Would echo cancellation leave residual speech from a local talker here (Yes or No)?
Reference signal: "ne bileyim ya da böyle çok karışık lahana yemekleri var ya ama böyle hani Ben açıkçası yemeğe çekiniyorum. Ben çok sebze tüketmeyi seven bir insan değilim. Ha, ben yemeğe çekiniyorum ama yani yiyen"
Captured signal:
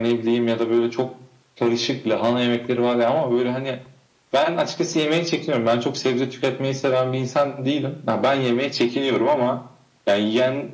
No